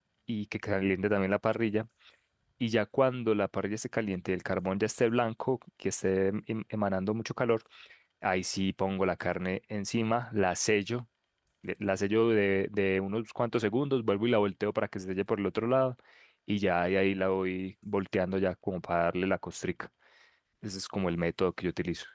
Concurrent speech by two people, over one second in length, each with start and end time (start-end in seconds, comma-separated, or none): none